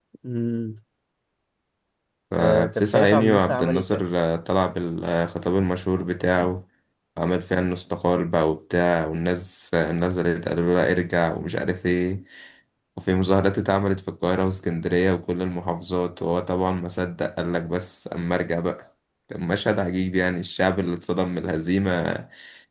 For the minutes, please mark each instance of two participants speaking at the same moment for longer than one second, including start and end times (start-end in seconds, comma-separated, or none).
2.4-4.0